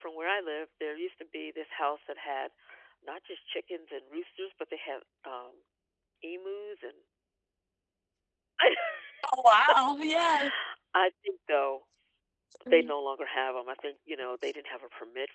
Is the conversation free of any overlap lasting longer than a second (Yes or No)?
Yes